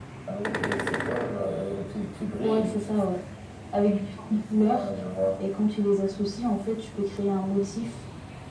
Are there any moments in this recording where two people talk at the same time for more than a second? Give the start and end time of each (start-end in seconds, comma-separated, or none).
none